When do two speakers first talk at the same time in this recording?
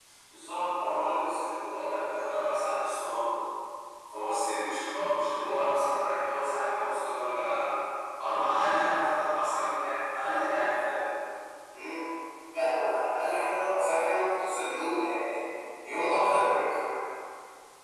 none

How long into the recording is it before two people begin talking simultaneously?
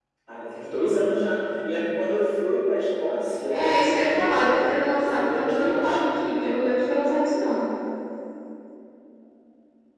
4 s

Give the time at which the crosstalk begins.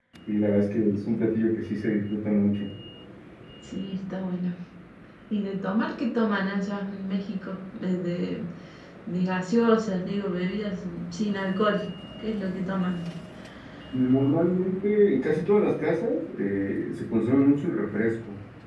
none

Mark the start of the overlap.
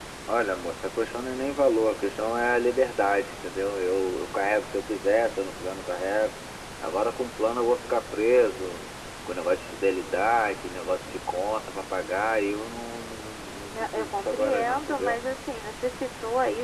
14 s

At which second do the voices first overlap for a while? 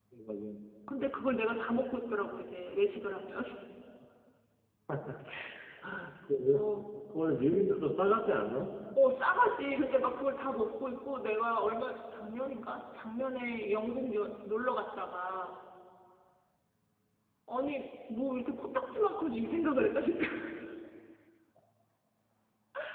none

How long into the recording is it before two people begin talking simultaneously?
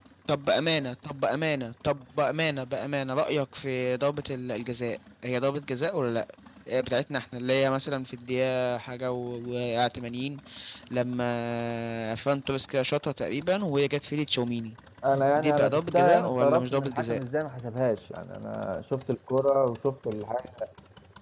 15 s

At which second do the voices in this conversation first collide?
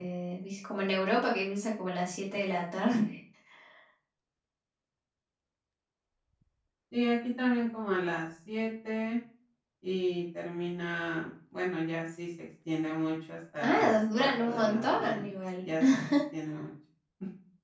14 s

